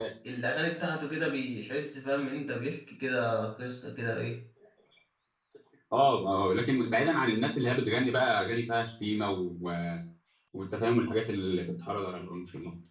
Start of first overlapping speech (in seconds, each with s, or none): none